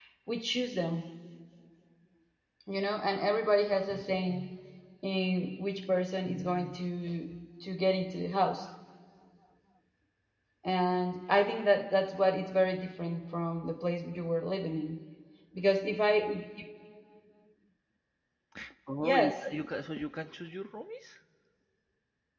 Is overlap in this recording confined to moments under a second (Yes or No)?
Yes